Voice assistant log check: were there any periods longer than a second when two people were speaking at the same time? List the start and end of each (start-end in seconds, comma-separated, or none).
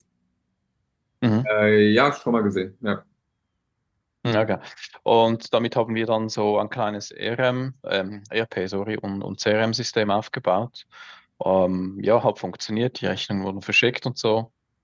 none